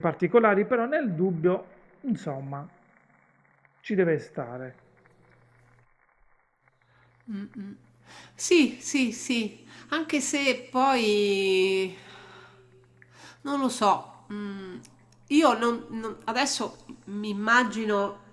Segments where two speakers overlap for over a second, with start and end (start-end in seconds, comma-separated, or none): none